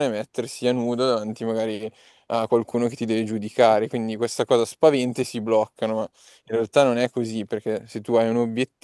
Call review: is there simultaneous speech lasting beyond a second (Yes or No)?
No